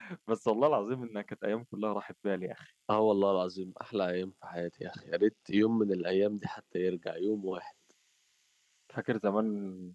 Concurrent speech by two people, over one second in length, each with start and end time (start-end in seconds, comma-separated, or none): none